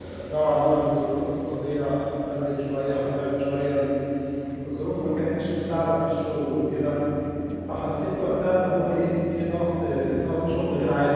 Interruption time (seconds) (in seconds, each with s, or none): none